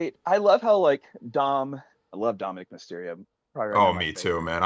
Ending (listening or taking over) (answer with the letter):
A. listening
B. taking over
B